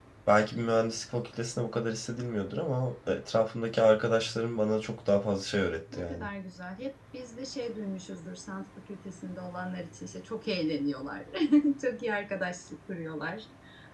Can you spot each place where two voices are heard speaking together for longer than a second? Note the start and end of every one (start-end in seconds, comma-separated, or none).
none